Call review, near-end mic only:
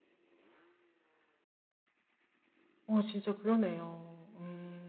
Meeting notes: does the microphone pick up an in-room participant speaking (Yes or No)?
Yes